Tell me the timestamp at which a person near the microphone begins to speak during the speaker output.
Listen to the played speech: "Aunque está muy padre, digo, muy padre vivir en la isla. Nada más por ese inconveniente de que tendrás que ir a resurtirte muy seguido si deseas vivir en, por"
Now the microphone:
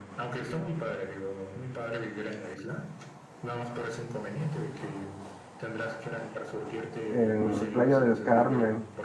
7.1 s

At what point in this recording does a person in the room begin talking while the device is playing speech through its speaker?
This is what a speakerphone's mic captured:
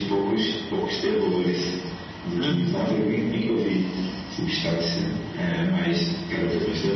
2.4 s

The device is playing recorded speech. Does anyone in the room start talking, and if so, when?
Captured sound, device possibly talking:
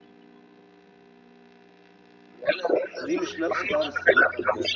3.0 s

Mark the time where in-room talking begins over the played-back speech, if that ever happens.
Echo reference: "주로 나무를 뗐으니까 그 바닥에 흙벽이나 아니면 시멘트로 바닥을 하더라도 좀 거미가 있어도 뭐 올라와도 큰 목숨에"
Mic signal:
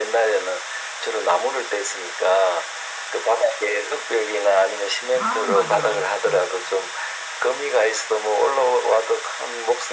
5.1 s

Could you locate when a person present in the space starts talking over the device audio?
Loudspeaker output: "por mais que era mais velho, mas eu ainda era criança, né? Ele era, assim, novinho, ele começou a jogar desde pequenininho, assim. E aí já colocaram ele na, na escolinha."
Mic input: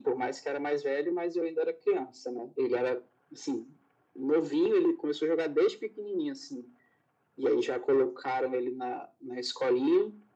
none

